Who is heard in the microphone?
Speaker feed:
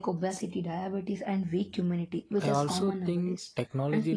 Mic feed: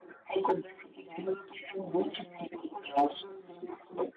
echo only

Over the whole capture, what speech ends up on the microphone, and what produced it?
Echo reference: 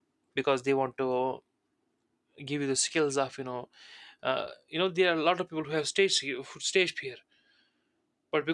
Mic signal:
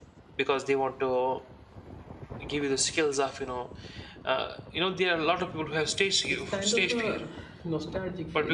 both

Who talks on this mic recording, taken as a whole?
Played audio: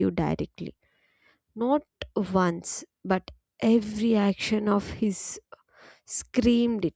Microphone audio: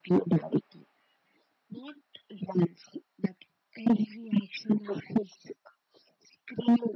echo only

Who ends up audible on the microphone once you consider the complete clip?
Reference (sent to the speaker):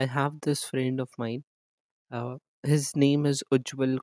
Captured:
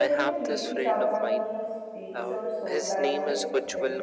both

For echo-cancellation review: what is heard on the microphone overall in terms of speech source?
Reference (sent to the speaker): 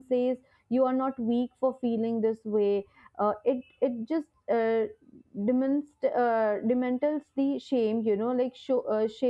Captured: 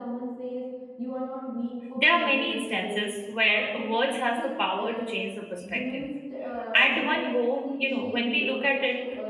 both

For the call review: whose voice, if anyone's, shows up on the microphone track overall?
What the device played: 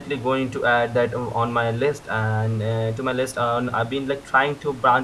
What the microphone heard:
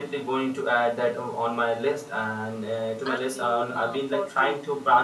both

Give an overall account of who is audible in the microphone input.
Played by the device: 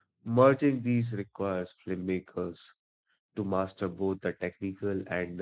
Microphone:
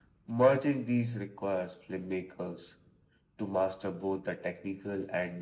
echo only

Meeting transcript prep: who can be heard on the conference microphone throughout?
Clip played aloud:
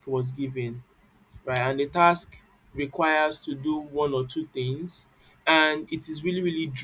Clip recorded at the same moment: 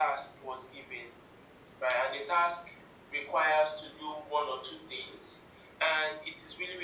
echo only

